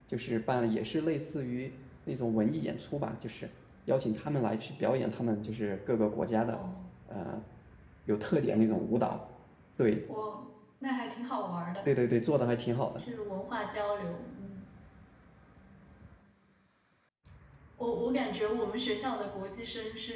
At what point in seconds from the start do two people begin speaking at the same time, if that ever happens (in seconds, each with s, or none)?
none